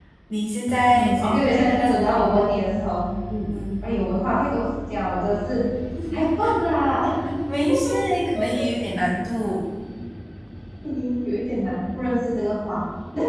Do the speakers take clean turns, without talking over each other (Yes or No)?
No